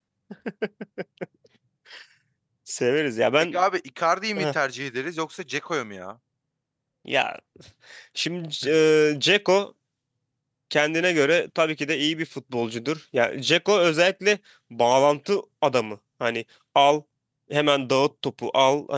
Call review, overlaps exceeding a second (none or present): none